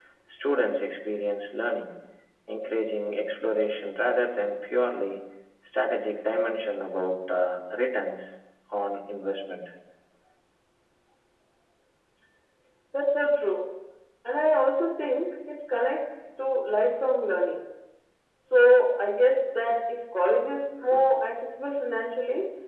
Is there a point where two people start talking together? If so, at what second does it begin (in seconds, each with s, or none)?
none